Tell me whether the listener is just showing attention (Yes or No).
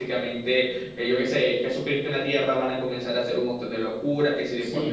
No